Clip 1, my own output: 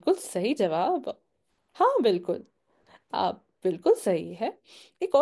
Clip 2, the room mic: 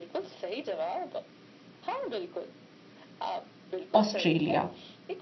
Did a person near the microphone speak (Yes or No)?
Yes